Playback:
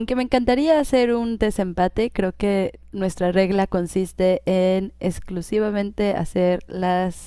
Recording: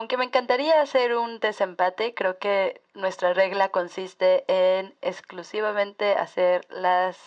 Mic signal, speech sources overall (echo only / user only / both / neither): echo only